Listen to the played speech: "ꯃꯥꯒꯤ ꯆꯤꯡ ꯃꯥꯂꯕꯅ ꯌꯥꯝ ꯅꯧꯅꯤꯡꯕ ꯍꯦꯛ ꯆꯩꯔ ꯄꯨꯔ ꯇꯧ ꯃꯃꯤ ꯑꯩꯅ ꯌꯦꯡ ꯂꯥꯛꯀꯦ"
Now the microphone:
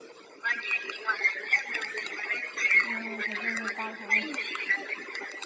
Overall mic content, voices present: both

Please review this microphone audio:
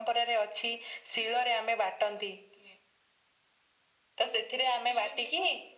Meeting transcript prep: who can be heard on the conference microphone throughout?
echo only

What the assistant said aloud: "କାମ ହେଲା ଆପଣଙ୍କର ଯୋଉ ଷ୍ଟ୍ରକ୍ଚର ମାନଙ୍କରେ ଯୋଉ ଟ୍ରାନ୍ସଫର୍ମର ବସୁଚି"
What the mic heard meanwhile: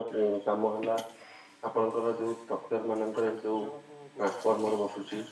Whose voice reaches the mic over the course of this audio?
both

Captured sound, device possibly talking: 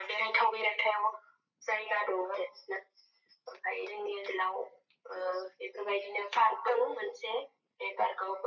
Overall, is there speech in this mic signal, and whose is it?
echo only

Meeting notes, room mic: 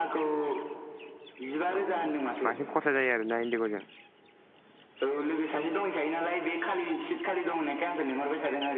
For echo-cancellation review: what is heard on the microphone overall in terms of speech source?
both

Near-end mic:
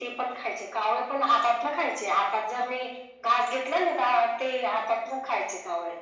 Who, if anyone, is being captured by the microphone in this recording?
echo only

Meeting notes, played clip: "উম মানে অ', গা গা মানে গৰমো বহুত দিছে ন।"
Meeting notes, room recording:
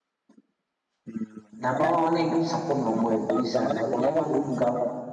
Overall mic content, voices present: both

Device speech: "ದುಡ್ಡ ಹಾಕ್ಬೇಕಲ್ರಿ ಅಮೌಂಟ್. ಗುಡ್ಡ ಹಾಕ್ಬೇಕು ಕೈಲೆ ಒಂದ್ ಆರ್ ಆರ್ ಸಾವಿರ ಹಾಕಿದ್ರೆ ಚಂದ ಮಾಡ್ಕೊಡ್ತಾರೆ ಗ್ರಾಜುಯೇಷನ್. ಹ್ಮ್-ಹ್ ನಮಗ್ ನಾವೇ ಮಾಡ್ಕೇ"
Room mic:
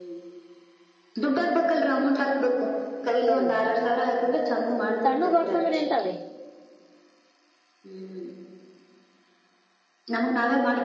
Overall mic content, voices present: both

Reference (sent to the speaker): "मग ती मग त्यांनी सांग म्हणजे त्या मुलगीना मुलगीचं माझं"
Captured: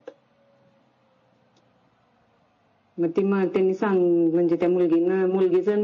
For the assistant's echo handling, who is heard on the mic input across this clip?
echo only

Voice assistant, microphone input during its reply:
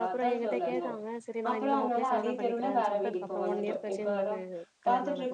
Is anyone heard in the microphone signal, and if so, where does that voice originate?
both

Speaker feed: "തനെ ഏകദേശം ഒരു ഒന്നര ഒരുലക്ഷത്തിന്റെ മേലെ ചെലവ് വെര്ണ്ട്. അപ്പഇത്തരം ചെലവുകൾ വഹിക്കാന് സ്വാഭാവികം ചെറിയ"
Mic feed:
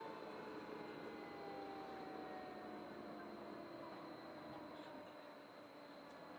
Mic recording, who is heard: neither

